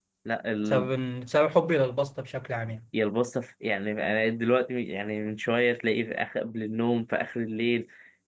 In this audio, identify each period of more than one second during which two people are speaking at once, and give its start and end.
none

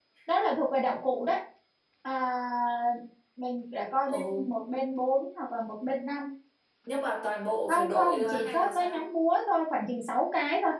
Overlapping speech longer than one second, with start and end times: 7.7-9.1

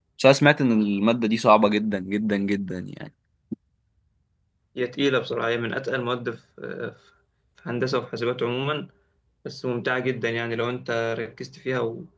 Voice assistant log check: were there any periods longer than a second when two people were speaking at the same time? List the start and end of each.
none

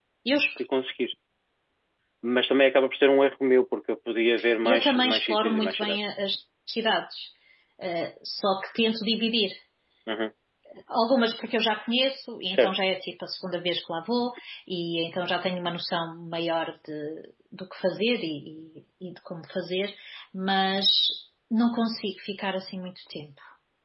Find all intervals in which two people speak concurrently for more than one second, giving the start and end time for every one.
4.6-6.0

